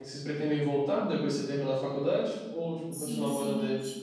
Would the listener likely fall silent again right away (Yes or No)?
No